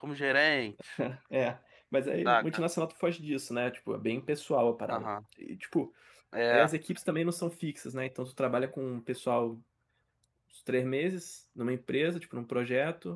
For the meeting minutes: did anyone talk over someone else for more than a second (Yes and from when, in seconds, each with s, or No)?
No